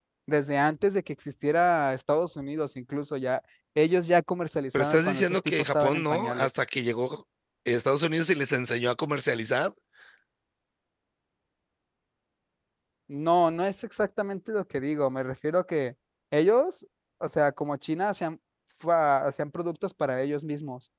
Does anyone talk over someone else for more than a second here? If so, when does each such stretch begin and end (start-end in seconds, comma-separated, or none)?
4.7-6.5